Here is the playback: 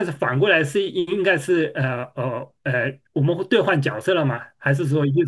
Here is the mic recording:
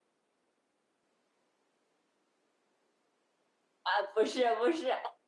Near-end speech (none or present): present